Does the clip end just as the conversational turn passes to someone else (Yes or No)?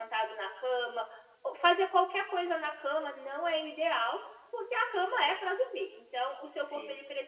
No